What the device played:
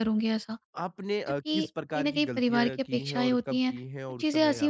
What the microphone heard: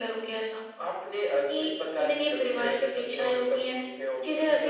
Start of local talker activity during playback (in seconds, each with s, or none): none